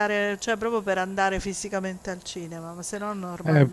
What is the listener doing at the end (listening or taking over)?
taking over